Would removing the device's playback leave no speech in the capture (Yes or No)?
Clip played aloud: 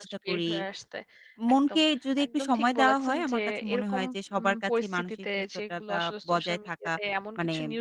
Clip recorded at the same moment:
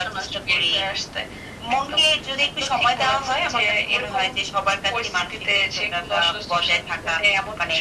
Yes